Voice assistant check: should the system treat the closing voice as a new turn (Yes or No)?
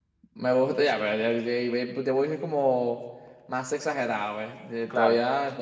No